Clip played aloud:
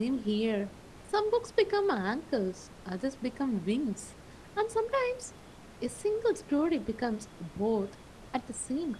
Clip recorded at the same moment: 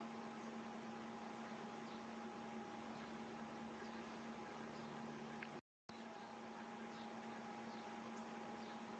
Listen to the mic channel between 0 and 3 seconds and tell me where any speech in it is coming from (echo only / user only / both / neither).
neither